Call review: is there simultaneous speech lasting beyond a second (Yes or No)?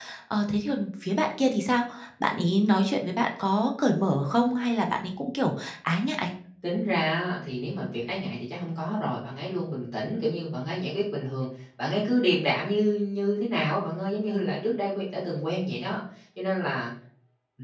No